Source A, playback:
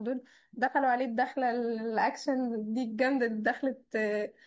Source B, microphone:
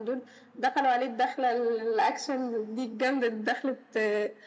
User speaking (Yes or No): No